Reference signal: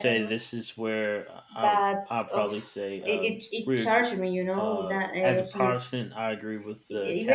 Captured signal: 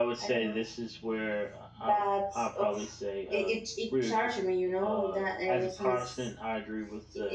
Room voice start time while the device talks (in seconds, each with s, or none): none